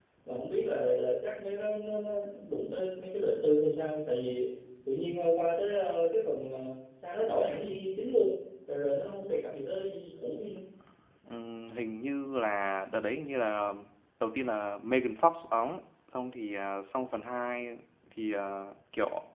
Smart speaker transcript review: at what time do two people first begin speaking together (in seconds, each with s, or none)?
none